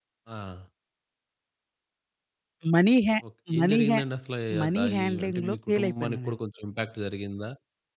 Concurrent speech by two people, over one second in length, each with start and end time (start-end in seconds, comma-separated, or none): 4.6-6.4